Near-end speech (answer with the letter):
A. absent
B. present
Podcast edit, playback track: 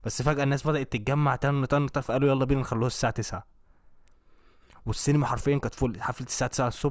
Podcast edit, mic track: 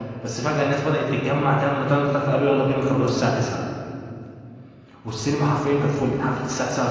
A